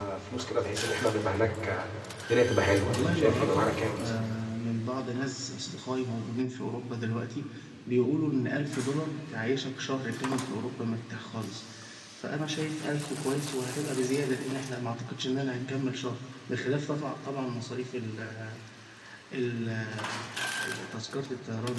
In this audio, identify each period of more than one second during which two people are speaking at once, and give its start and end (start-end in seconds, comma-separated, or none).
2.8-4.1